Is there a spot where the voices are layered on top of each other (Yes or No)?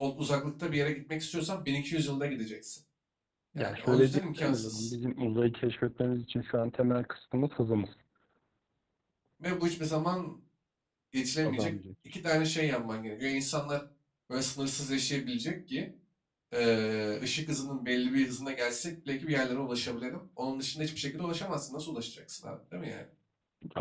Yes